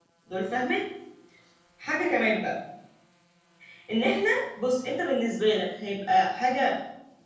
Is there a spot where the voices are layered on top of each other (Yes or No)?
No